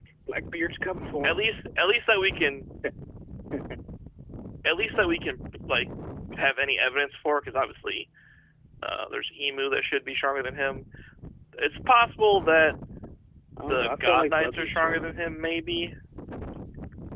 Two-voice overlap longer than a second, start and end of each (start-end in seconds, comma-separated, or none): 13.7-15.4